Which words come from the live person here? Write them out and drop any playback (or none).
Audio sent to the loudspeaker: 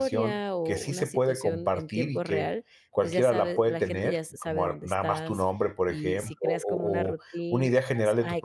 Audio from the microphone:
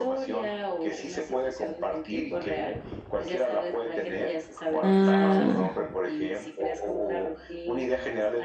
Ah.